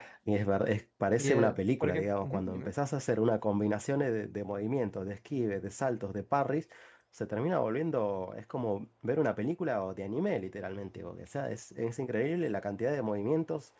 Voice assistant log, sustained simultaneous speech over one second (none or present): present